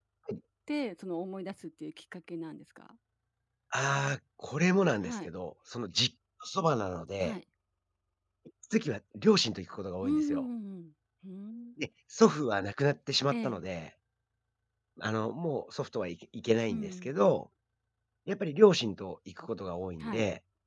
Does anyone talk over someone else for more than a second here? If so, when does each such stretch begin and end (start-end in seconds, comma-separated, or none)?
none